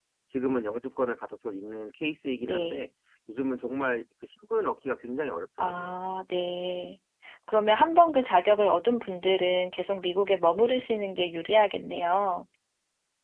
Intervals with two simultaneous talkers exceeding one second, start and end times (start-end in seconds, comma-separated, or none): none